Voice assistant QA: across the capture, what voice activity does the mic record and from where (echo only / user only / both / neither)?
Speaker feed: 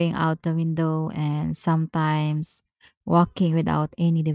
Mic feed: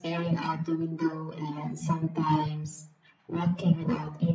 echo only